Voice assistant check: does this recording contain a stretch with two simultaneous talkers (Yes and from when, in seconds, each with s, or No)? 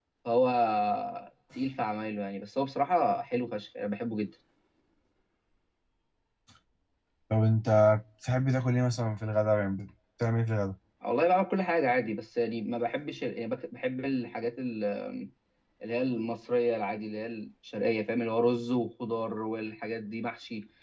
No